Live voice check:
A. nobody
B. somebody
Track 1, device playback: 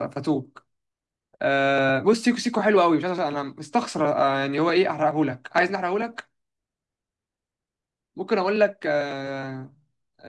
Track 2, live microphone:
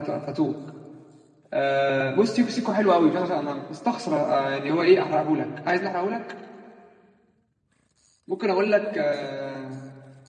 A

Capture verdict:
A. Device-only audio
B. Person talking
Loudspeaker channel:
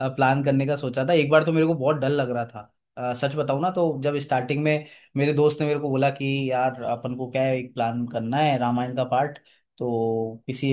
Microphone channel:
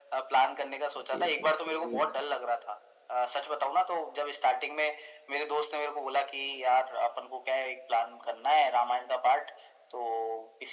B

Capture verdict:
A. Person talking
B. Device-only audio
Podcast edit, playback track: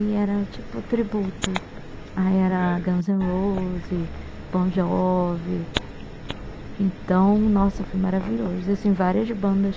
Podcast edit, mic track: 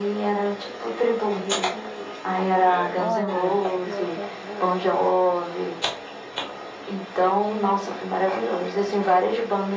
A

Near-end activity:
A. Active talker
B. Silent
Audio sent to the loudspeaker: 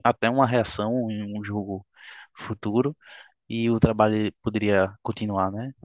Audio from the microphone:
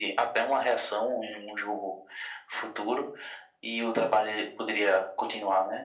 B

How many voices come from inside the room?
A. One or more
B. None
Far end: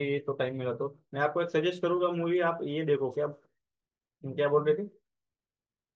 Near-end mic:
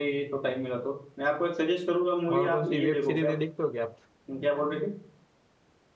A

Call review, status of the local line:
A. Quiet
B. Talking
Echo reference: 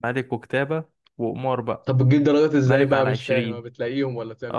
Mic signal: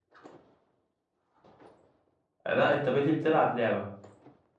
B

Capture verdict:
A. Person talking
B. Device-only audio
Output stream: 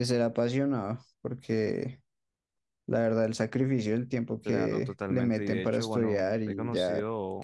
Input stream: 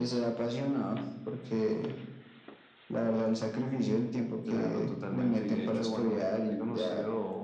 B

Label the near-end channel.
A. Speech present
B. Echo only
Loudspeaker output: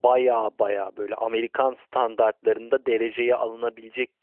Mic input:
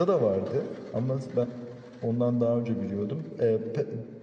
A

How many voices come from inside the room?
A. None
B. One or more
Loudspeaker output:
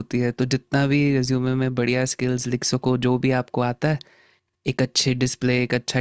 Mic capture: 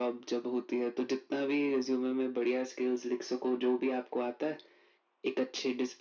A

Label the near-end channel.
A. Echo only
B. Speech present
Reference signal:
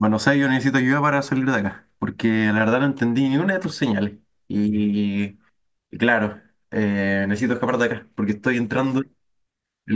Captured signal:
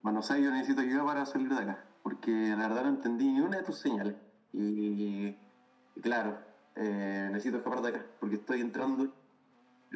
A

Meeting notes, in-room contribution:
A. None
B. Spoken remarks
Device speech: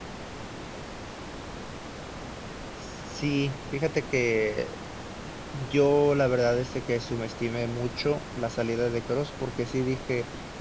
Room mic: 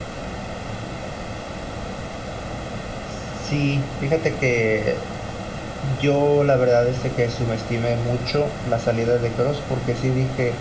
A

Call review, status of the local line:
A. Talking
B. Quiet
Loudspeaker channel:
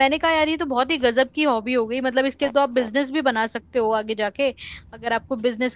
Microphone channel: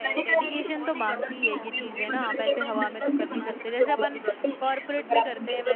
A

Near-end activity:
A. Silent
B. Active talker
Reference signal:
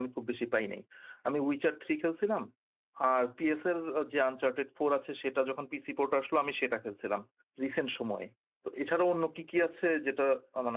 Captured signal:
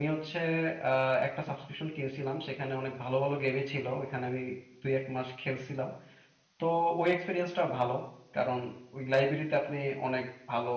B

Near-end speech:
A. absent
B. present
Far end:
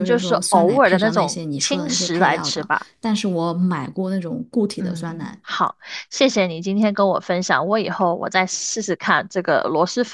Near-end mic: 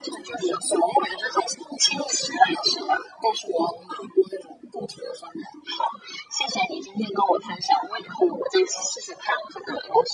A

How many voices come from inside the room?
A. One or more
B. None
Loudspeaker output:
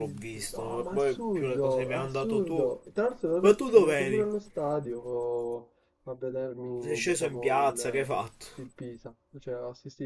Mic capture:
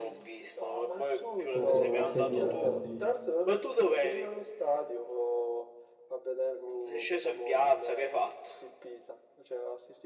A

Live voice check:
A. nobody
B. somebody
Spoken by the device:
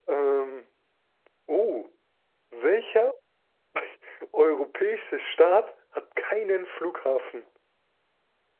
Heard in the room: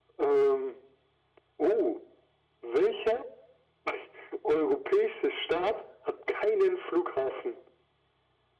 A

